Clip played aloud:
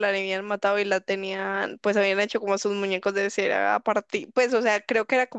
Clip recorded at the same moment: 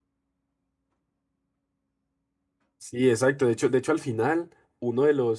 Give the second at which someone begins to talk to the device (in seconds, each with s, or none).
2.8 s